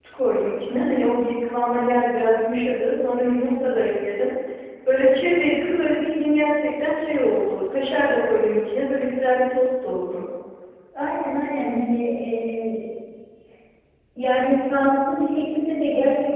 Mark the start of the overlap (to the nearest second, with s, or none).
none